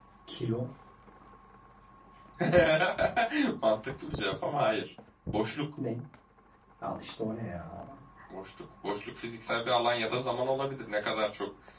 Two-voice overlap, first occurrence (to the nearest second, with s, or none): none